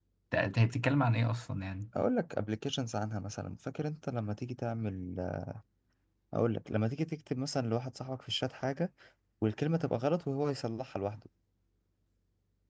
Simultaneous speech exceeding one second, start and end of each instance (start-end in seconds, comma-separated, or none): none